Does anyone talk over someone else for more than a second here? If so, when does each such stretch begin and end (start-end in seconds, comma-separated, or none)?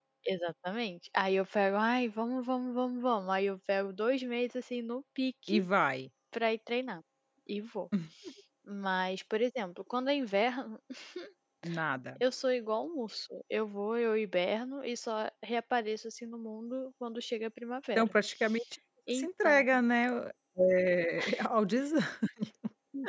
none